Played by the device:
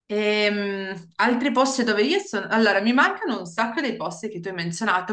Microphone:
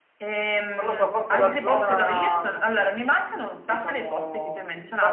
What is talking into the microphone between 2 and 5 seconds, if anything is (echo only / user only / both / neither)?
both